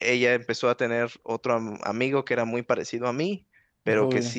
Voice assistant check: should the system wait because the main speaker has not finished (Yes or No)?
Yes